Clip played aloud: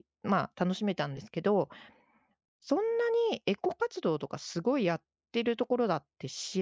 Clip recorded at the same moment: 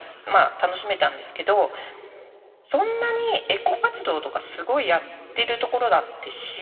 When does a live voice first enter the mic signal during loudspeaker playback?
none

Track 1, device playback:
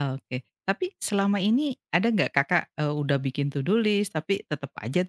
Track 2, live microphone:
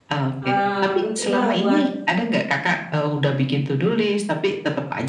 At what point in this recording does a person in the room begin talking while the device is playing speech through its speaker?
0.4 s

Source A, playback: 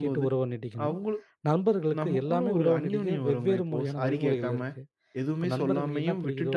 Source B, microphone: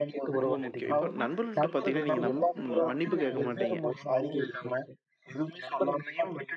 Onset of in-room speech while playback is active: 0.4 s

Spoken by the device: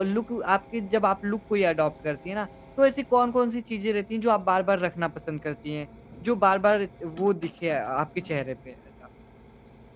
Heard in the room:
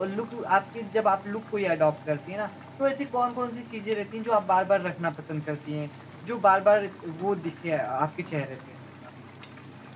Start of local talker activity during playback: none

